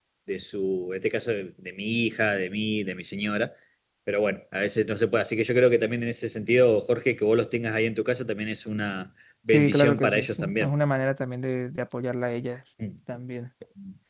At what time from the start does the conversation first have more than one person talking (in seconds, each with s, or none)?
9.4 s